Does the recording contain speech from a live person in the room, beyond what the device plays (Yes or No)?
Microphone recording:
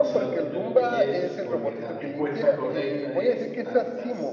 Yes